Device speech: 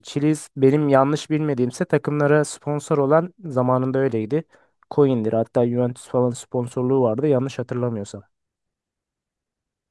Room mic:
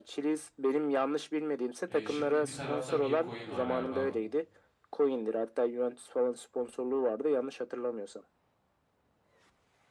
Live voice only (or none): E, şimdi bir tarafta meme coin var galiba.